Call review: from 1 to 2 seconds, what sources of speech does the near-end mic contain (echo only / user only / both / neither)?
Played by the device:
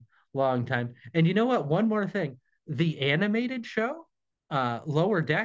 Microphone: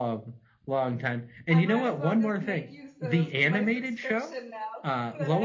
both